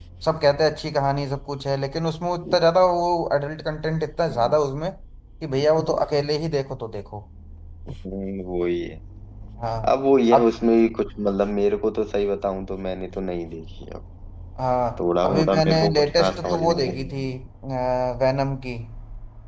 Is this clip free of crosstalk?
No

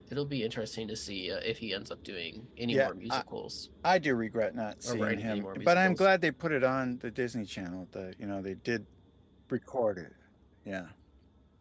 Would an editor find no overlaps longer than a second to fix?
No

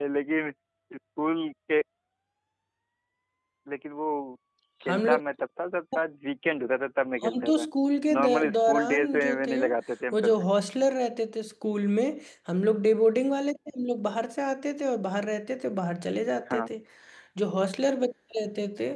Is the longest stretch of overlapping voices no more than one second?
No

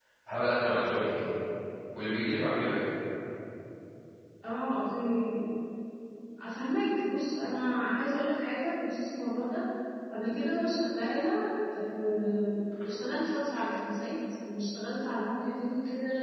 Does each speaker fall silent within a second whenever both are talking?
Yes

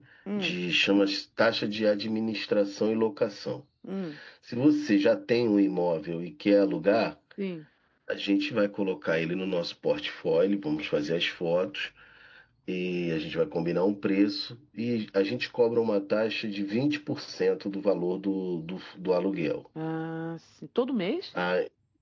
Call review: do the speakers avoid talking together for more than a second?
Yes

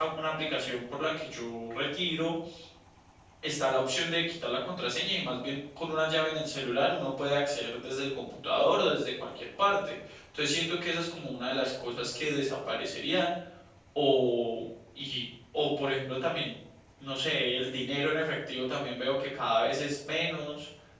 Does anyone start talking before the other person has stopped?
No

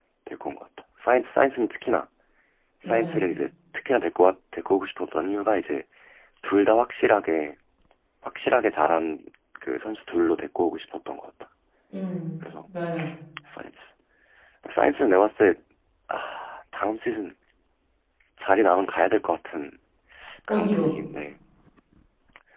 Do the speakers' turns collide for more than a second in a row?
No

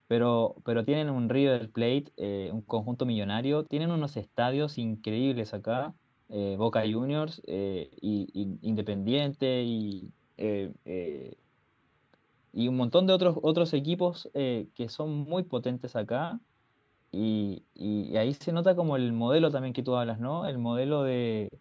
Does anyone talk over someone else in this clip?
No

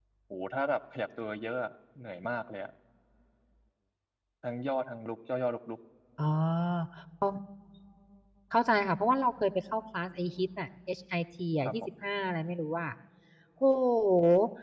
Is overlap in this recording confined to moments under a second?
Yes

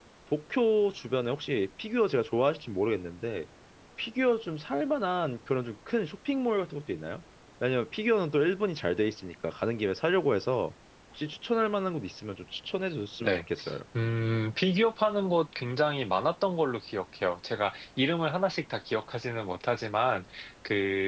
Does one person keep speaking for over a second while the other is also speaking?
No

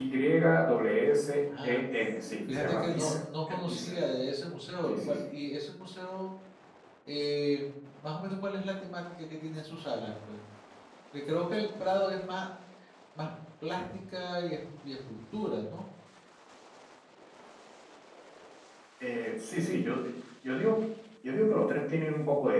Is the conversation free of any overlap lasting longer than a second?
No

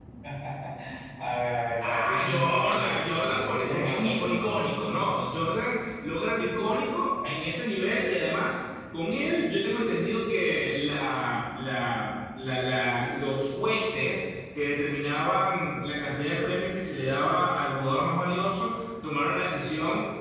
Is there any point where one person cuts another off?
Yes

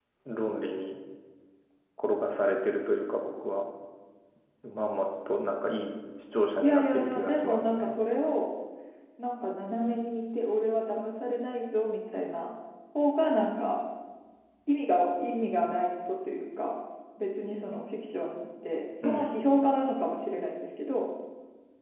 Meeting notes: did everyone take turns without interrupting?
No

